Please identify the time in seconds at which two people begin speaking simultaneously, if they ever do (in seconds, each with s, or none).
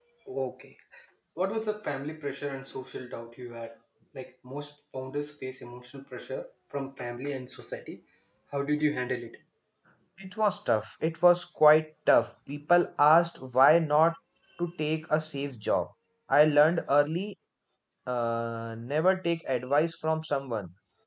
none